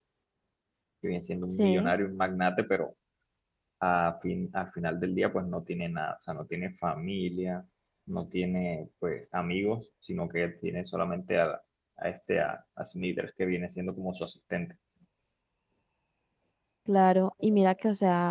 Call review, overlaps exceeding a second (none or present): none